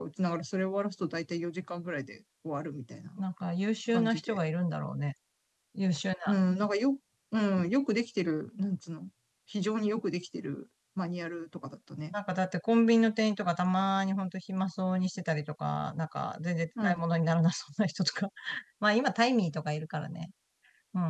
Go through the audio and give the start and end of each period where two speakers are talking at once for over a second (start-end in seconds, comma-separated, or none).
none